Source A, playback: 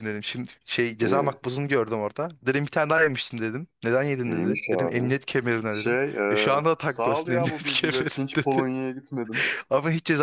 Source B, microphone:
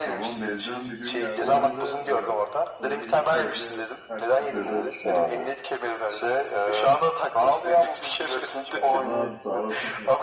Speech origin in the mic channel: both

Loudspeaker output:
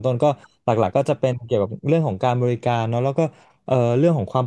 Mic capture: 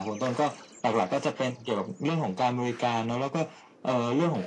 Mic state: echo only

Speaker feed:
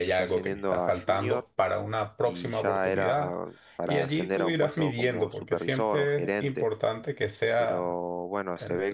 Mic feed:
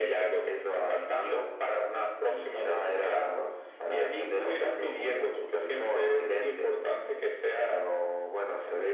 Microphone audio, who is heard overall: echo only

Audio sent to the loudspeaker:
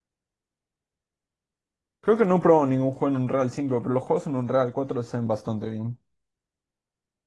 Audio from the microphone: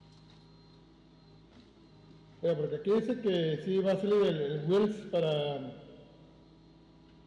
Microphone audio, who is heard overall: user only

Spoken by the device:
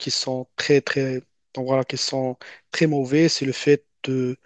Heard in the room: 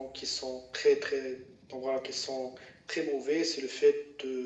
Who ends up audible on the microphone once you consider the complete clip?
echo only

